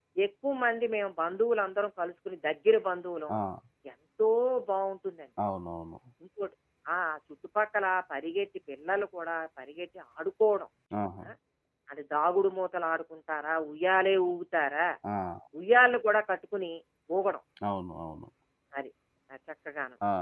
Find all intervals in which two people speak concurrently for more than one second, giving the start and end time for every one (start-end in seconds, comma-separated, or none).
none